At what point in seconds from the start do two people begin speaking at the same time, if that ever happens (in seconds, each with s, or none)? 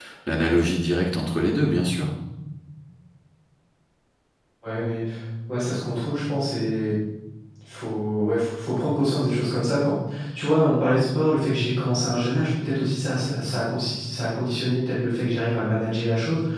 none